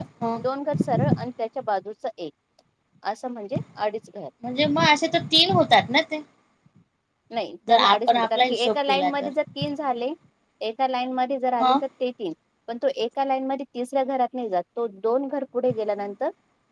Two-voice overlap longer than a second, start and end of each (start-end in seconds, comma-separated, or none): 7.7-9.3